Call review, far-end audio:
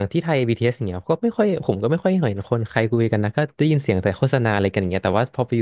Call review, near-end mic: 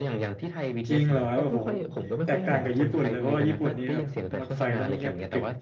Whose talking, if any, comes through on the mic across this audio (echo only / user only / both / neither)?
both